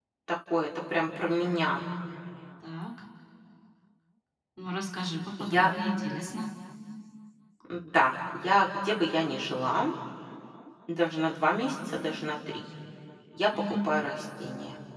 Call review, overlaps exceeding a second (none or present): none